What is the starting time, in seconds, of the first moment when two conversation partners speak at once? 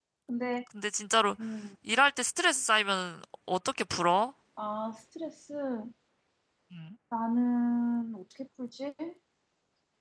none

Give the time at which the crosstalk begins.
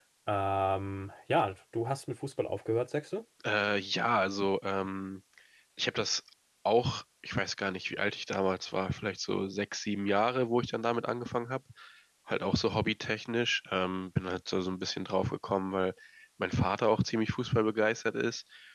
none

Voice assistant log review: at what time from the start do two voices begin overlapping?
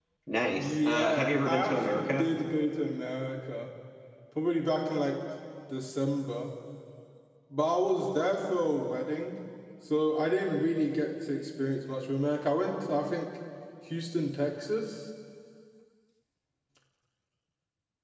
0.6 s

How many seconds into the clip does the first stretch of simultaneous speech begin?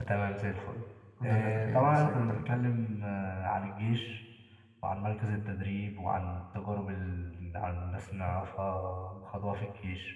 1.2 s

